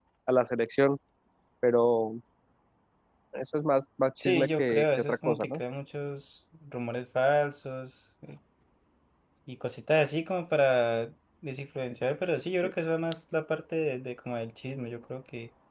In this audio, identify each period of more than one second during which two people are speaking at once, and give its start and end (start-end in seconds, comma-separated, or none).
4.2-5.6